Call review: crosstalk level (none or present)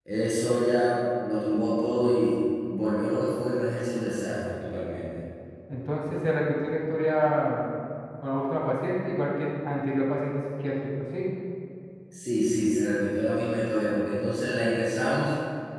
none